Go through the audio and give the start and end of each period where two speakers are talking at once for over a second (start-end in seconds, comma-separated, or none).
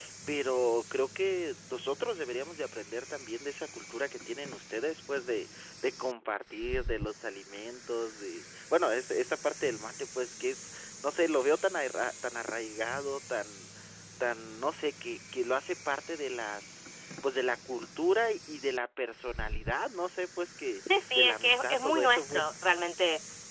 21.1-22.4